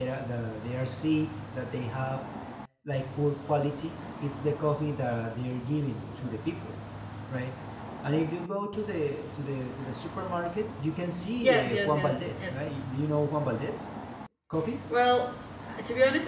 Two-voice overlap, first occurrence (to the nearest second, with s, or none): 11 s